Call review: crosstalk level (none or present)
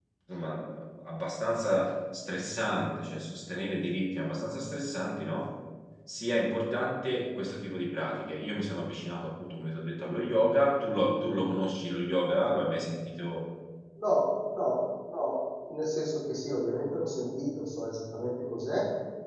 none